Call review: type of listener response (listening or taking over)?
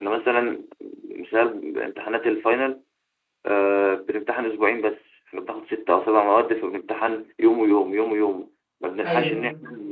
listening